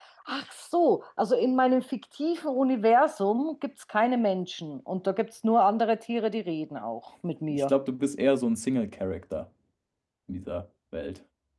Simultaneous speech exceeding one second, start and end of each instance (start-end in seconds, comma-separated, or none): none